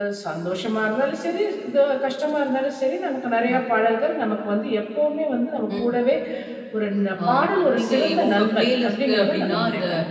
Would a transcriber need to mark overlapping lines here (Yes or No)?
Yes